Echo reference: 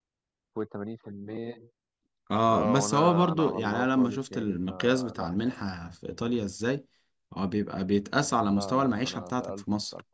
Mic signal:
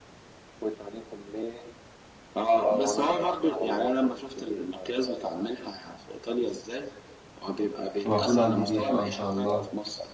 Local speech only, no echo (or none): المفروض عندي جيش اه ان شاء الله